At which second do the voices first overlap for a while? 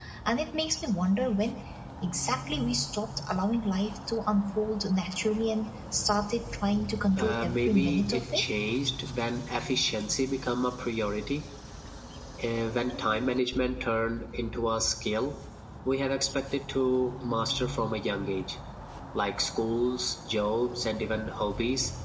7 s

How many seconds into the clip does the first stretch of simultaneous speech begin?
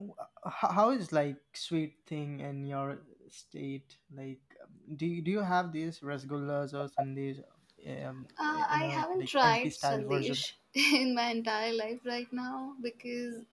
9 s

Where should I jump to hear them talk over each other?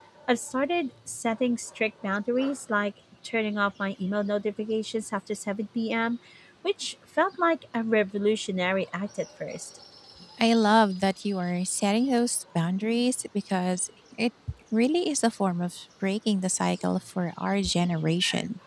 none

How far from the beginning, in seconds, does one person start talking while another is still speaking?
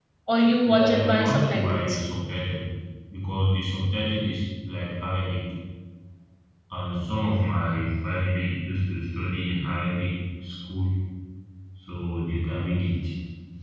1 s

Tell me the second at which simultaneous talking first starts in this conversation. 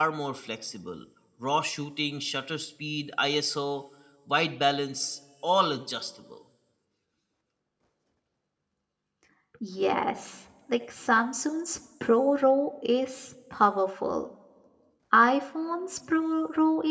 none

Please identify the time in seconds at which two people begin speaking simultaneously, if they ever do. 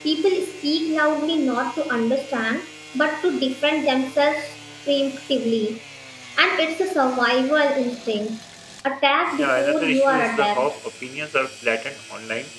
9 s

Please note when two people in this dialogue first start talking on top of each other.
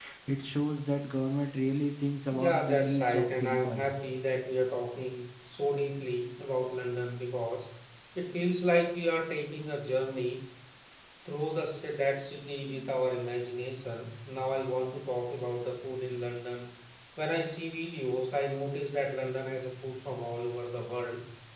2 s

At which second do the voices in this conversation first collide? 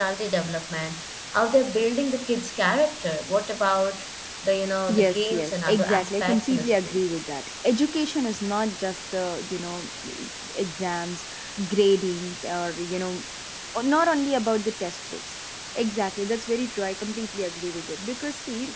5 s

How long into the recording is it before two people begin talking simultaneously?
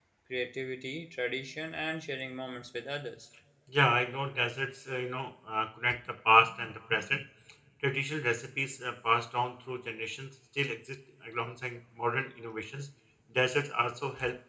none

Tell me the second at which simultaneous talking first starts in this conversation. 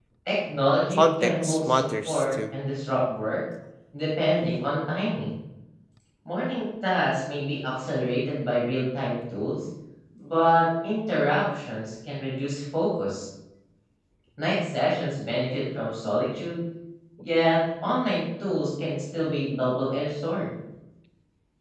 1 s

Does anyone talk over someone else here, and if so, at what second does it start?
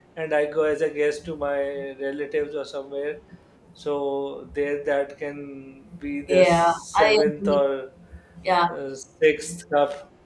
6 s

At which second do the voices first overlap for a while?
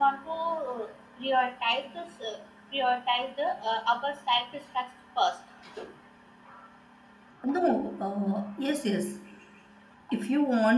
none

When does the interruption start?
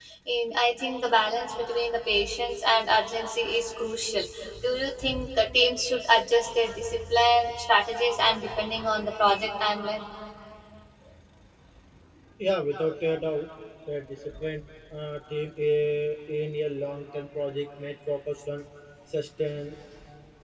none

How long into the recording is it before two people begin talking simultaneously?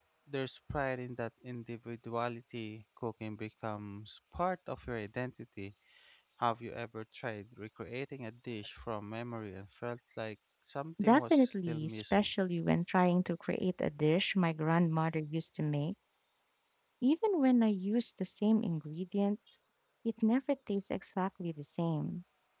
11 s

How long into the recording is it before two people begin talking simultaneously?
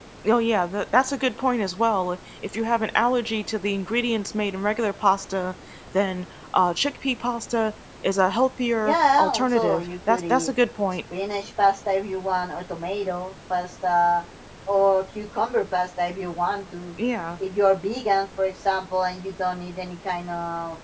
9 s

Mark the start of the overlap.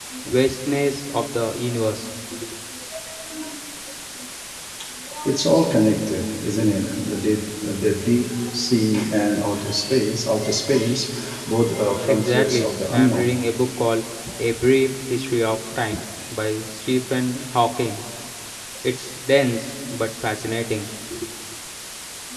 12 s

